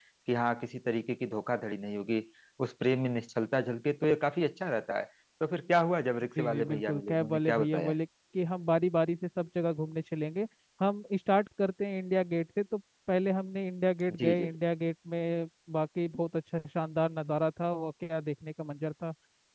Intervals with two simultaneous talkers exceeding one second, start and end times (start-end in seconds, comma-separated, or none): 6.4-7.9